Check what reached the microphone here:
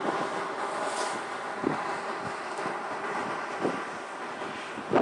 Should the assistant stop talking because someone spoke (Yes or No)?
No